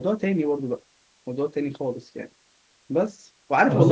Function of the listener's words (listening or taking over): taking over